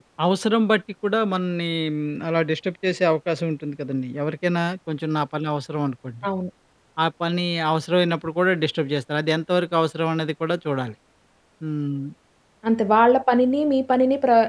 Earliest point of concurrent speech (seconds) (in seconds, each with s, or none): none